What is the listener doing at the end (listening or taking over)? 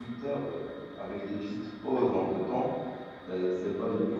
listening